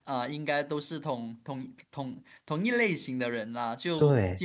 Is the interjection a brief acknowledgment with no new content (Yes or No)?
Yes